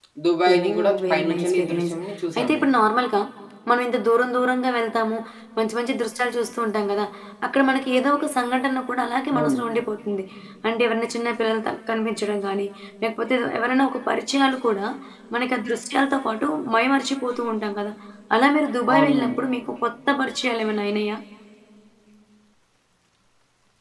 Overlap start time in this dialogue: 0.5 s

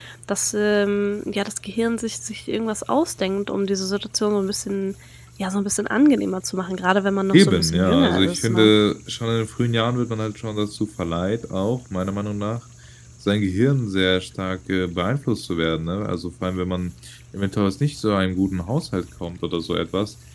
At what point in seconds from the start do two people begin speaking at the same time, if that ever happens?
7.3 s

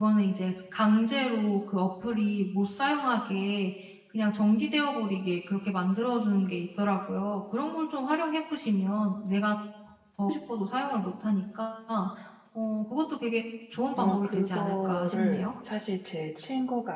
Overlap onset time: 13.9 s

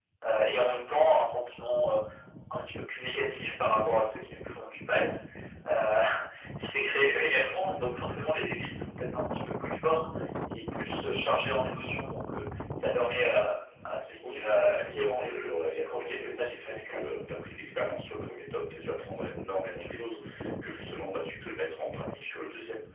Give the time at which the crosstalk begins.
14.2 s

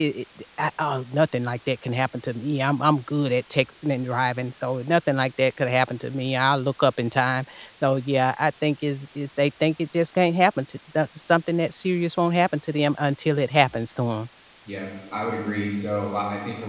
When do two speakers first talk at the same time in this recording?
none

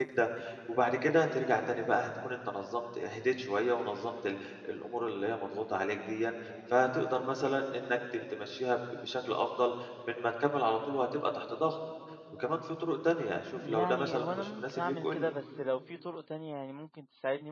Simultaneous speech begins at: 13.6 s

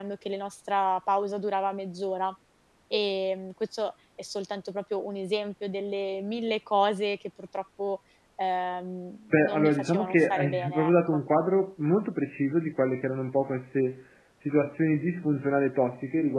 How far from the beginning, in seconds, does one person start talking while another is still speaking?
9.3 s

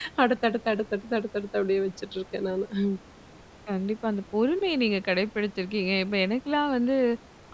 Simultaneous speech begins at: none

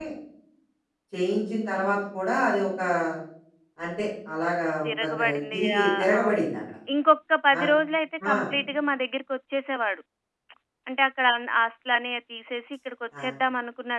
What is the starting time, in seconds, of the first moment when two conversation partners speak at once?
4.9 s

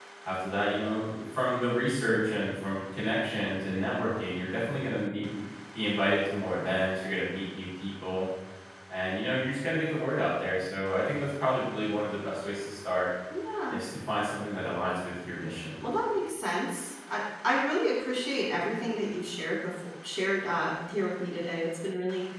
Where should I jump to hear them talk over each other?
none

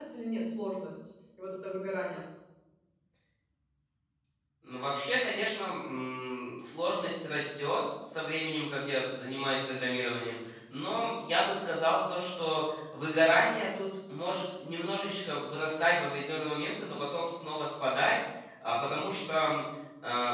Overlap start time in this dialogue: none

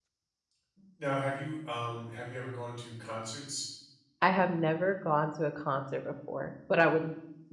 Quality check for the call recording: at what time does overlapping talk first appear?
none

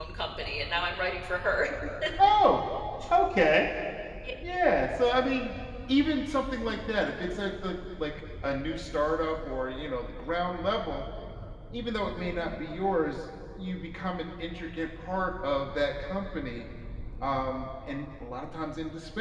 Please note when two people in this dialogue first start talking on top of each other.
none

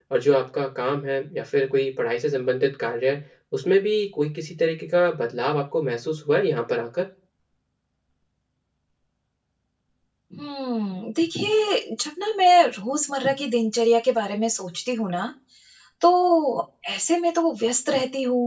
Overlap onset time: none

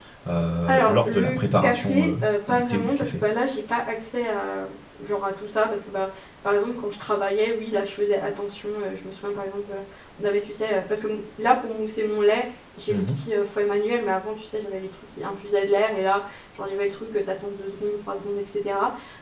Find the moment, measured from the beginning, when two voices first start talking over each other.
0.7 s

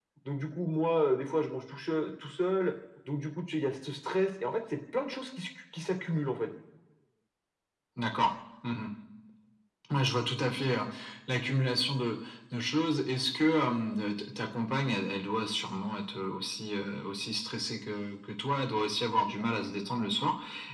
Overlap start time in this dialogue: none

